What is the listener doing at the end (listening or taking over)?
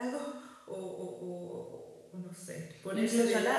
listening